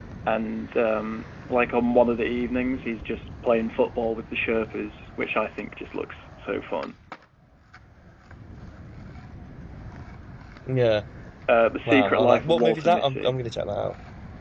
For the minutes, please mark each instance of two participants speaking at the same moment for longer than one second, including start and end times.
11.9-13.3

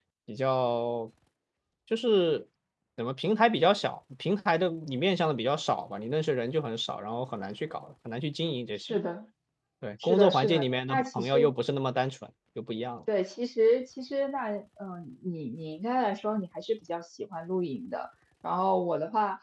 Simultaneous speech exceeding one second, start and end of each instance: 10.0-11.5

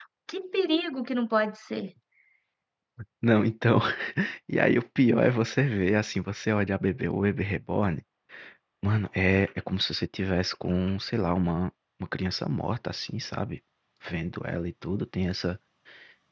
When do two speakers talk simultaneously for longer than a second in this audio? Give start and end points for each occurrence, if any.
none

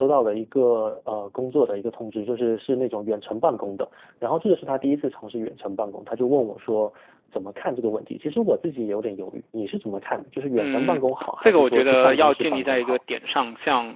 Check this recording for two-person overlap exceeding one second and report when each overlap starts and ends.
11.4-13.0

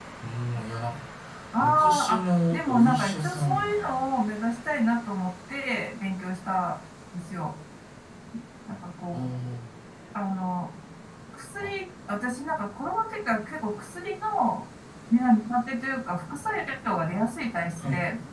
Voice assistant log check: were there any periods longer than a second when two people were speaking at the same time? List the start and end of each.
1.6-4.0

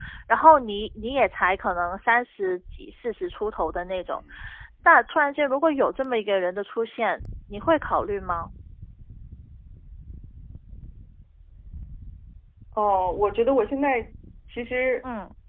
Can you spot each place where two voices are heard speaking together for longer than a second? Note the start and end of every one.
none

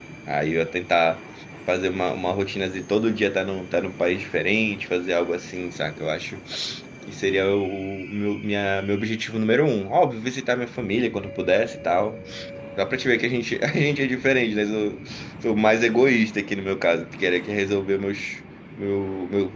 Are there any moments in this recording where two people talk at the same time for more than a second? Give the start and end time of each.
none

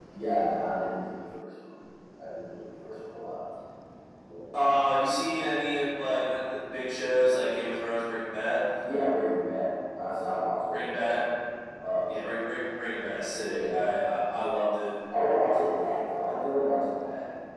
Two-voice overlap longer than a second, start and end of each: none

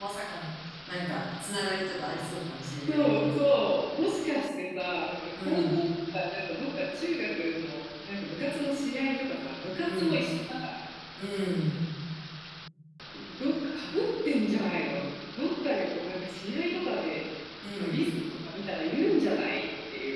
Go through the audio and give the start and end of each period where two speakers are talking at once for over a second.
none

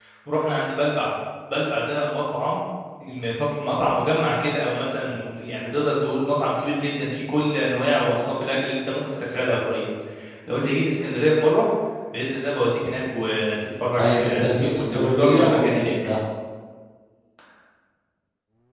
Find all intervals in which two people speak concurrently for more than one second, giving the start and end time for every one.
14.0-15.9

